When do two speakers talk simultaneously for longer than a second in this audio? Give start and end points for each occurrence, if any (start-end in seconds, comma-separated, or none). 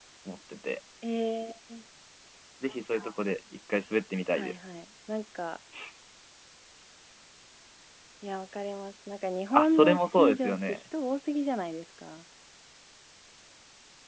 9.5-10.8